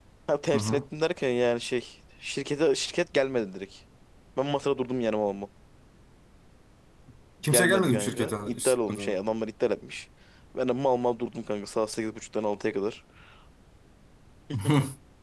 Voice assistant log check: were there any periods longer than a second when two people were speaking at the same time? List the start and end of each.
7.5-9.2

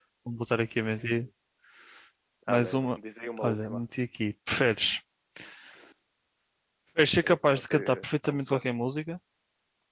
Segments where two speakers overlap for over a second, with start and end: 7.2-8.6

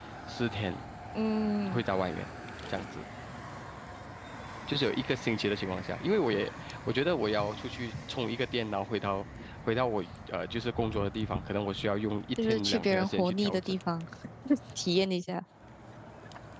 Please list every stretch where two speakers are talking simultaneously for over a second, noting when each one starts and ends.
12.4-13.7

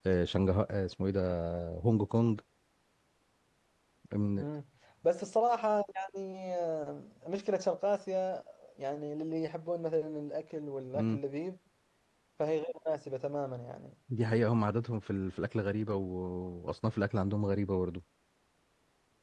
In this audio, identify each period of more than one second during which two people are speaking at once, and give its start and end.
none

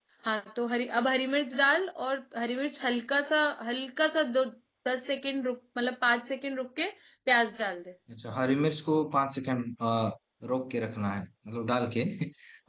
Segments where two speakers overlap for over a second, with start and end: none

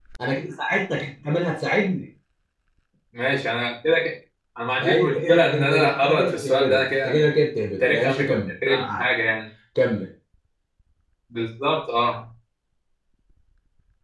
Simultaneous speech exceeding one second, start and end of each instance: 4.8-7.4, 7.8-9.1

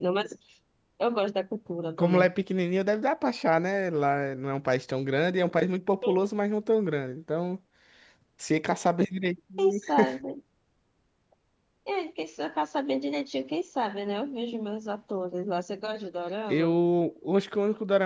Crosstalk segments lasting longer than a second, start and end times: none

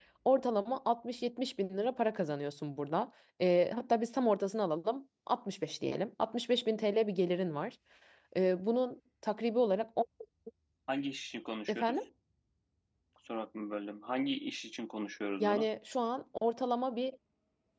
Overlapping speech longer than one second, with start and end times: none

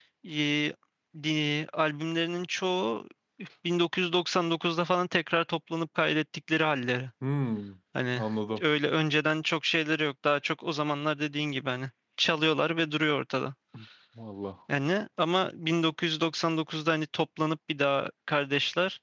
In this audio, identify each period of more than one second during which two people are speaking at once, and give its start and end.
none

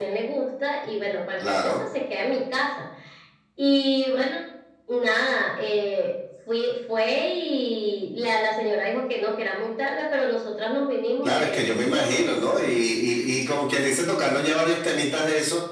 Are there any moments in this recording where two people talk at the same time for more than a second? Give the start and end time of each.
11.2-12.7

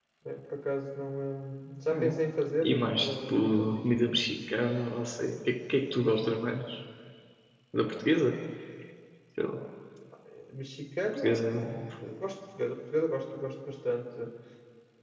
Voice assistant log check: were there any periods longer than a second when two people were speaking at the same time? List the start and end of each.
2.6-3.9

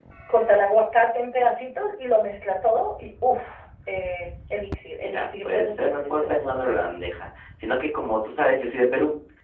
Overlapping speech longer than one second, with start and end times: 5.0-6.6

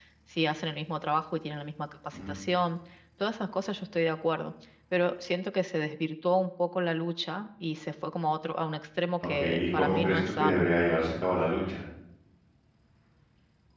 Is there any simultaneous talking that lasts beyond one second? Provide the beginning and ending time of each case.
9.3-10.6

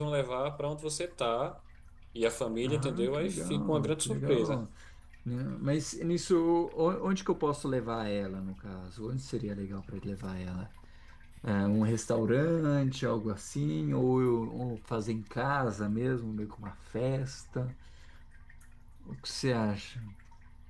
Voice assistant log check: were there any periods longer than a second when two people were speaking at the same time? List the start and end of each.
2.6-4.6

